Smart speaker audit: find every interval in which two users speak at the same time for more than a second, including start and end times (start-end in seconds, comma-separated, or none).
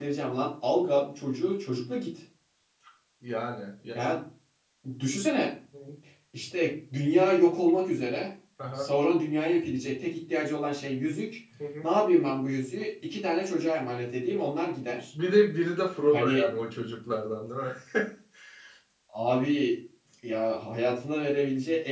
none